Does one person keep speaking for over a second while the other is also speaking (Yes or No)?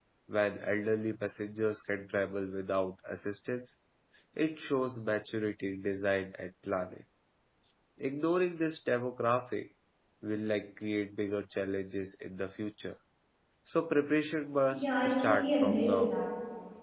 Yes